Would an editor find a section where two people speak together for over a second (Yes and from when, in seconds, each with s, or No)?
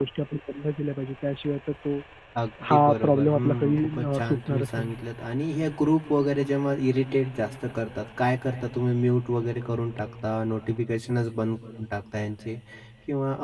Yes, from 2.7 s